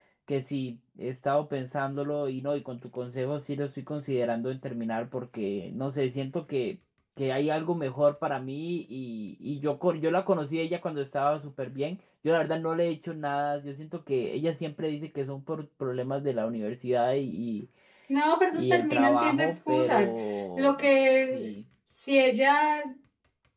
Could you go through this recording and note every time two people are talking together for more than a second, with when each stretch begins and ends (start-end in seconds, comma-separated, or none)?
18.5-20.1